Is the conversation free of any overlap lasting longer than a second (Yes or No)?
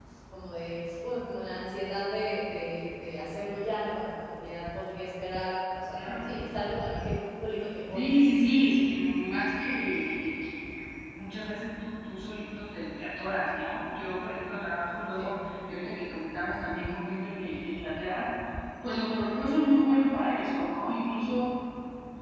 Yes